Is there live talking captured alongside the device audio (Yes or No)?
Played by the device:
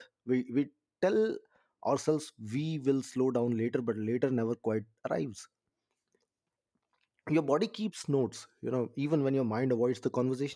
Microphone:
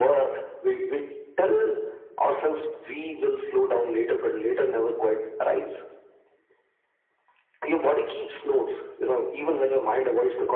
No